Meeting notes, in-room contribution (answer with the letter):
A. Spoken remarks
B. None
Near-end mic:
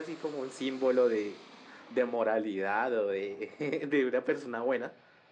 B